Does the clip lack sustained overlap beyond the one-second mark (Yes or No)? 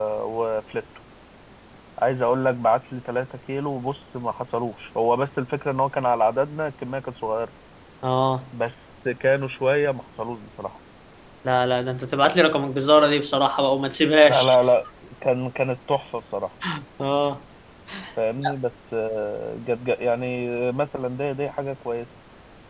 Yes